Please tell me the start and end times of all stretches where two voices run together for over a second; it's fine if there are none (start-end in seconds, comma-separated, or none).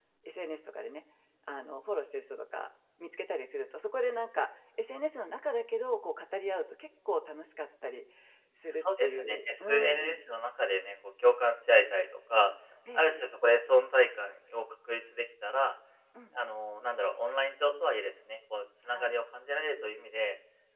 8.8-10.2